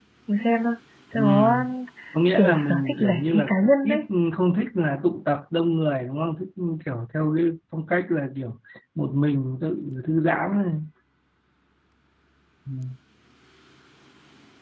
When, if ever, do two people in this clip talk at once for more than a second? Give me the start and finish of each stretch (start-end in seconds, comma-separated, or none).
2.4-4.0